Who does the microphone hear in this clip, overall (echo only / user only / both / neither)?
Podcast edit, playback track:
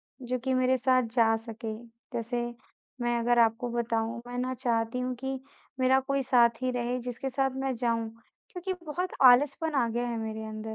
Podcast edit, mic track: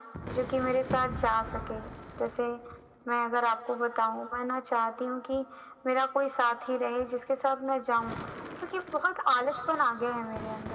echo only